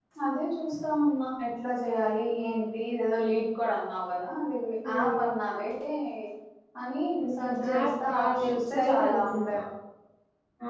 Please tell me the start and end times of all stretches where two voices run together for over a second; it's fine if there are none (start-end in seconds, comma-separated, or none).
7.2-9.6